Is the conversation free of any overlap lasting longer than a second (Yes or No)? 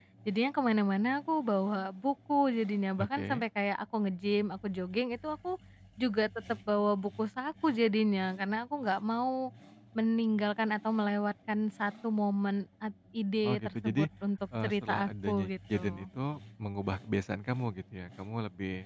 No